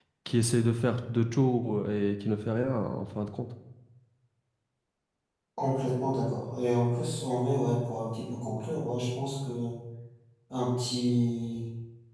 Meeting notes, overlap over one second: none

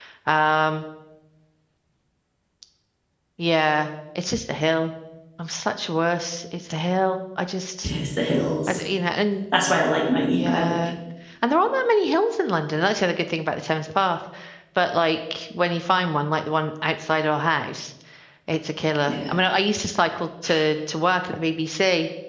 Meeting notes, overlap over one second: none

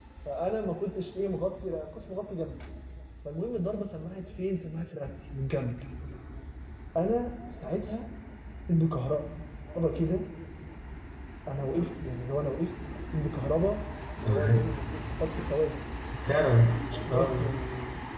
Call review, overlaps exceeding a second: none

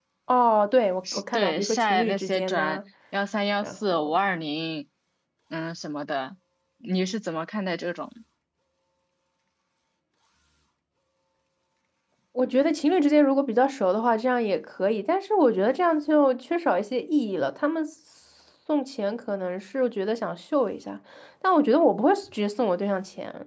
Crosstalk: present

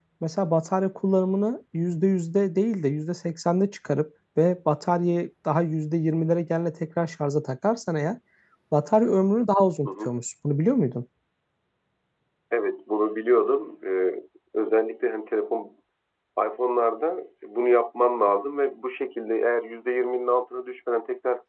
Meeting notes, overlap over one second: none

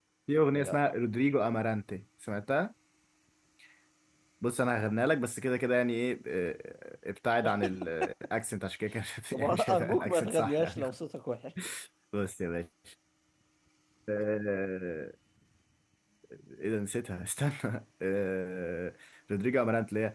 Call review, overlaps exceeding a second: present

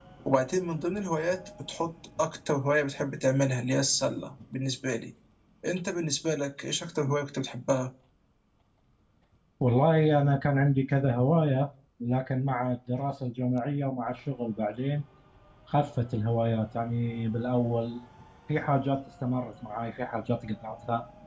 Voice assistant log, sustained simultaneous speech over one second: none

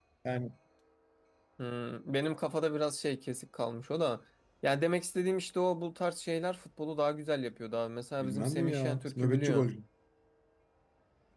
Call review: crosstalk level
present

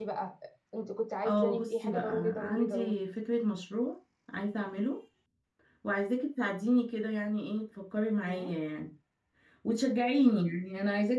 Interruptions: present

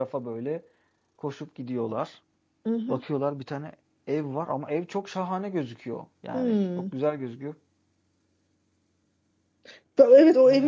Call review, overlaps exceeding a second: none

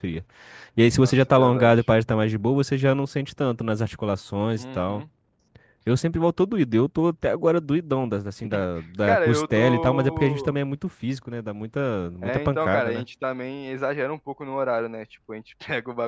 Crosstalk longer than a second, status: present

